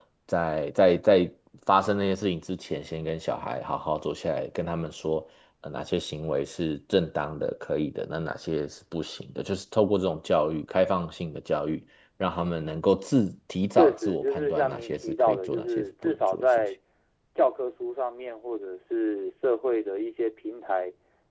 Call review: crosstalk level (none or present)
present